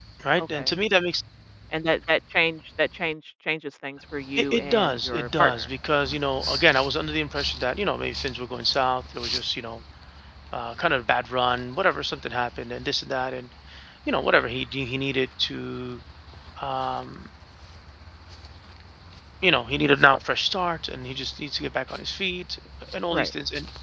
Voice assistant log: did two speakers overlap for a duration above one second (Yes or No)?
Yes